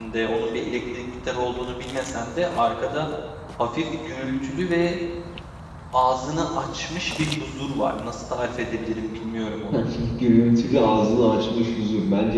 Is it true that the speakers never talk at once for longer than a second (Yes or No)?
Yes